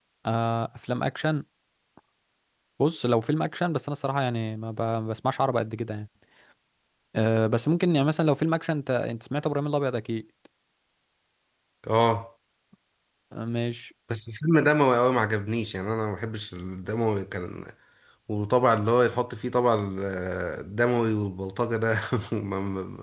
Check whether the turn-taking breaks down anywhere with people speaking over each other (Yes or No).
No